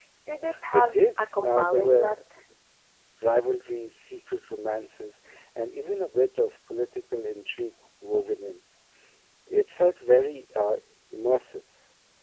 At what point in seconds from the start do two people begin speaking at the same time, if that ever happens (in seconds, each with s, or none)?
0.7 s